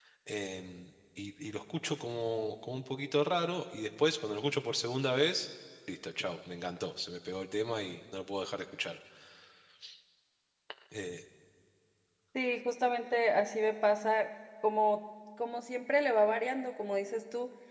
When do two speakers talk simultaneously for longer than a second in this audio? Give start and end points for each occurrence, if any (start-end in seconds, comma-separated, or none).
none